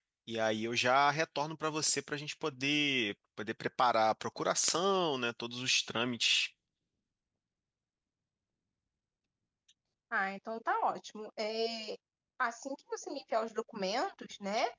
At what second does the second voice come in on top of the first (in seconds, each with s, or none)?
none